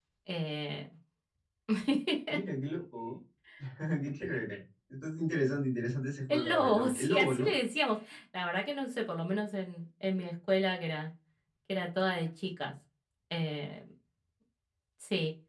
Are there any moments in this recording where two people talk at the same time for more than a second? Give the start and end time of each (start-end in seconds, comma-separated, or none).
6.3-7.5